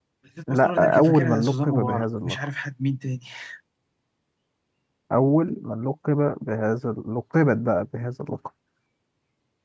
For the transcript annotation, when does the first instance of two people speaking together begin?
0.5 s

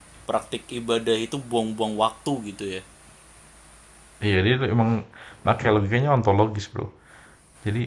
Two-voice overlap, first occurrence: none

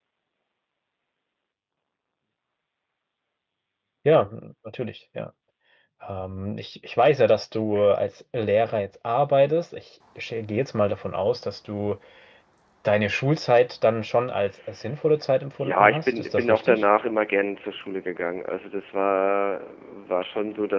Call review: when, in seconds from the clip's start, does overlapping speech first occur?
15.6 s

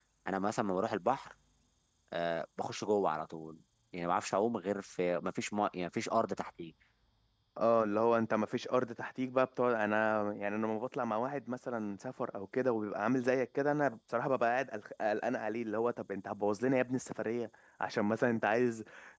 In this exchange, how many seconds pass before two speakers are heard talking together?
none

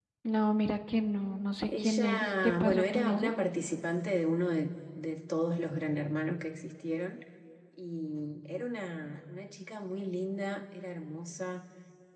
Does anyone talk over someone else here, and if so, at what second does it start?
1.7 s

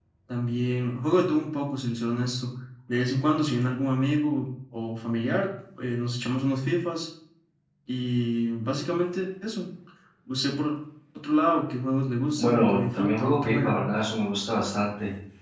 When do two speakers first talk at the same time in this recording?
12.4 s

